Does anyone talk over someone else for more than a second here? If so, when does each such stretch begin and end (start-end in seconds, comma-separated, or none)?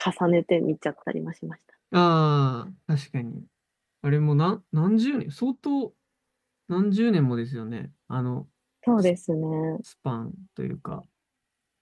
none